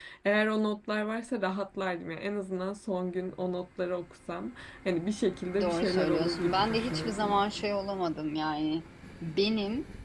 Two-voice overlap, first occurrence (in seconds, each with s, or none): 5.5 s